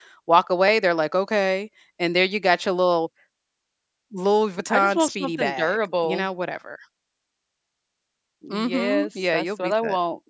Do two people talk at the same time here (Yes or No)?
Yes